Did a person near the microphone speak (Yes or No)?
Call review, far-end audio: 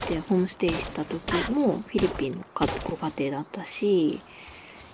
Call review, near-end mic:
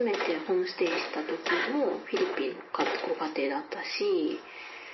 No